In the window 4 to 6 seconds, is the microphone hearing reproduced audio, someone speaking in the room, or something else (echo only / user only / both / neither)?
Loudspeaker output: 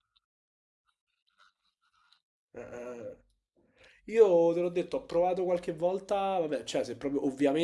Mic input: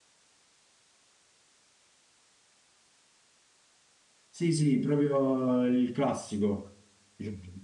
user only